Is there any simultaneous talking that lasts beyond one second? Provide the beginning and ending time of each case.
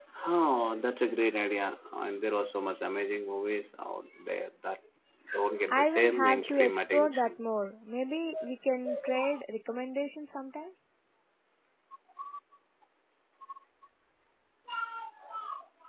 5.7-7.3

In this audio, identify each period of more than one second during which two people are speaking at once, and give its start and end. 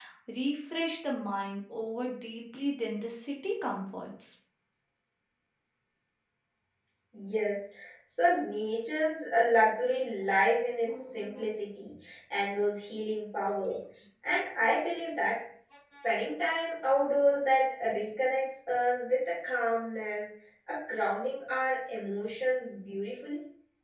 none

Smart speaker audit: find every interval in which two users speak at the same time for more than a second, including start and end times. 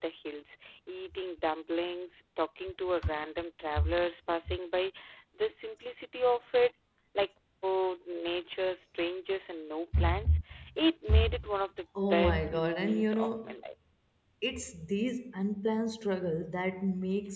12.1-13.6

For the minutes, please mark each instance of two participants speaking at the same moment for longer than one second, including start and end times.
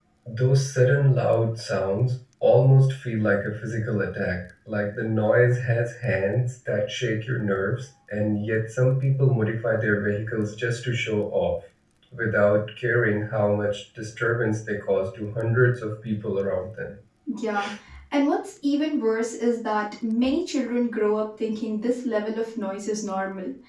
none

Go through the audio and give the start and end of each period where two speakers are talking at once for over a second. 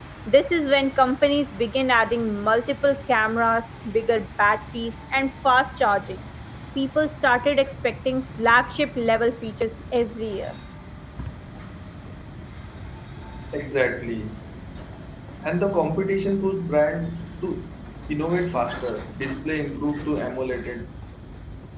none

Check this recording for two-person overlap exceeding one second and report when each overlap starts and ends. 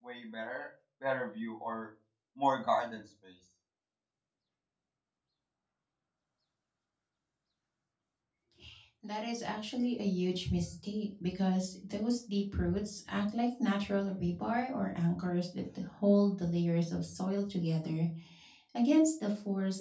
none

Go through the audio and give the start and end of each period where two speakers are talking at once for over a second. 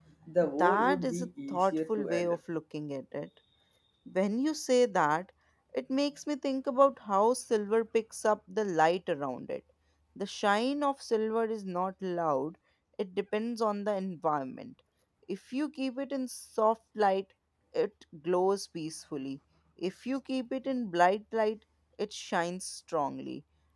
0.6-2.4

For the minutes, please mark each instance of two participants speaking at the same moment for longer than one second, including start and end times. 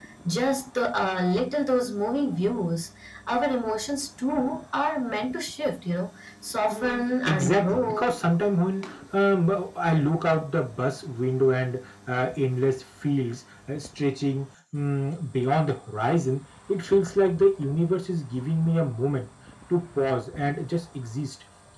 6.7-8.1

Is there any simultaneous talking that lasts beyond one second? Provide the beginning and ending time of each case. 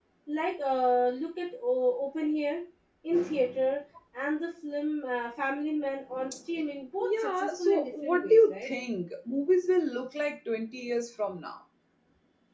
7.0-8.7

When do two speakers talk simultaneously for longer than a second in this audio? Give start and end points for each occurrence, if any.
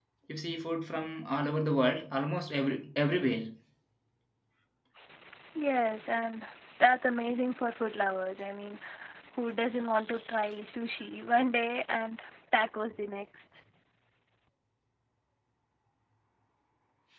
none

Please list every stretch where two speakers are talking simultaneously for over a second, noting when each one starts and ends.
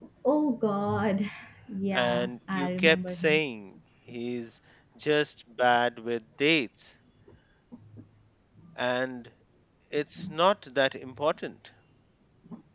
1.9-3.4

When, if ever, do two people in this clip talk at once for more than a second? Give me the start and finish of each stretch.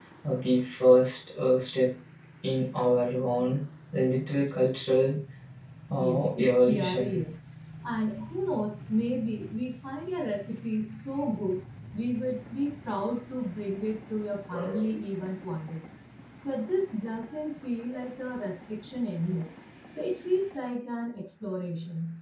6.0-7.2

